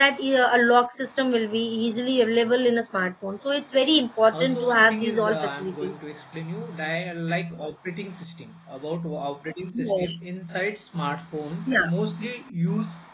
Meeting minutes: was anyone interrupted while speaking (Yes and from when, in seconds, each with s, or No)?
Yes, from 4.3 s